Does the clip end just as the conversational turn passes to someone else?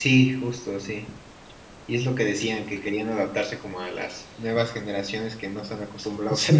Yes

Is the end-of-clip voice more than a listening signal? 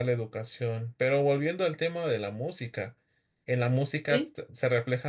No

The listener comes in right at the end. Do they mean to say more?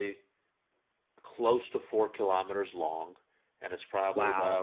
No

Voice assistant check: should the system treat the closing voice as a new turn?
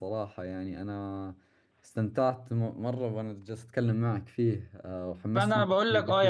Yes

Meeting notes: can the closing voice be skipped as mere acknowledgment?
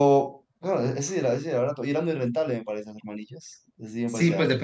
No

